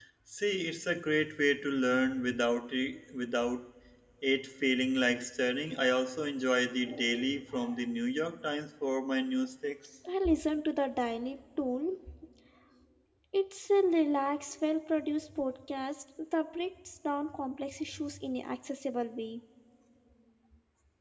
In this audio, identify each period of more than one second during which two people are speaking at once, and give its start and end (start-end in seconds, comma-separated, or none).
none